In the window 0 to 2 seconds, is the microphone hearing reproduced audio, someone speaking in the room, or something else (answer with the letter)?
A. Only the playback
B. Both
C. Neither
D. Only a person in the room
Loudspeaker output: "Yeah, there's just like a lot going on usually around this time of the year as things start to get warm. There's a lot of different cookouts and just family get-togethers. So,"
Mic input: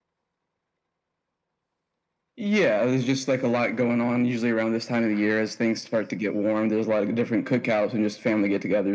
C